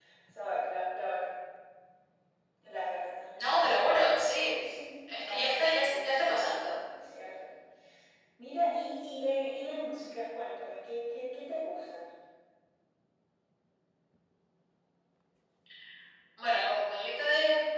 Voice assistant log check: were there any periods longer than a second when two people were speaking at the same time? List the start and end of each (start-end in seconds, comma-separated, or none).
5.1-6.7